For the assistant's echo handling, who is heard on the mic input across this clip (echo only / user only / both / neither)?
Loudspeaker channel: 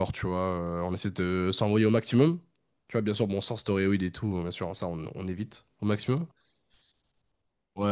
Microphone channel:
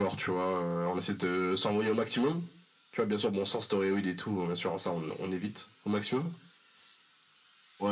echo only